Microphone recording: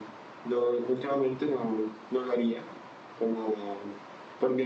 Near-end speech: none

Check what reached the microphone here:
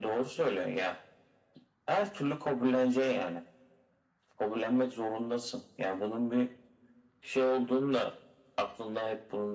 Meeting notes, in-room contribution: none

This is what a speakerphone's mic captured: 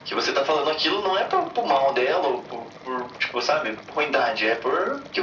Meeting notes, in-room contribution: none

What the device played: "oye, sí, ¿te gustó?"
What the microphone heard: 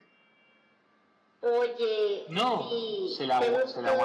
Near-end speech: present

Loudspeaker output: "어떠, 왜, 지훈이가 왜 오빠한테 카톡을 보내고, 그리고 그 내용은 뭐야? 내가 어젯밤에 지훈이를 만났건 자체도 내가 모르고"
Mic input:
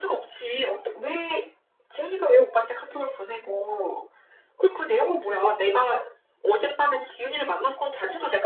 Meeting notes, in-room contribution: none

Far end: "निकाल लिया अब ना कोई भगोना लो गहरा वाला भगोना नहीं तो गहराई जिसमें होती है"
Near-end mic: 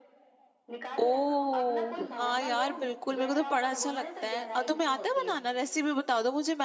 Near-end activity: present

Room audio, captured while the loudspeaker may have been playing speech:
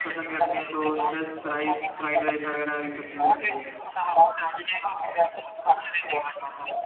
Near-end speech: present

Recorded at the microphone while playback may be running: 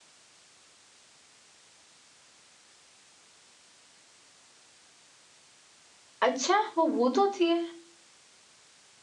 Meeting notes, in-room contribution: present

